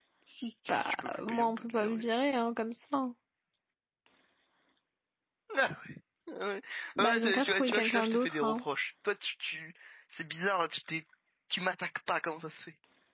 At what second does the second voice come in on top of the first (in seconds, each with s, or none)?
0.7 s